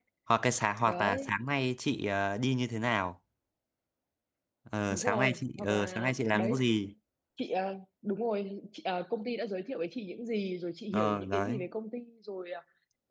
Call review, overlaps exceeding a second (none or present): present